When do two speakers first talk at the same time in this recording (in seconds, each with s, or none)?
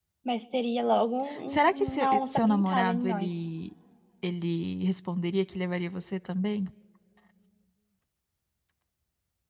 1.3 s